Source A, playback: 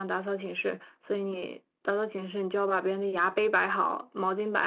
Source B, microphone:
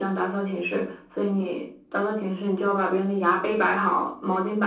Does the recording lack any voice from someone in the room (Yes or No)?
Yes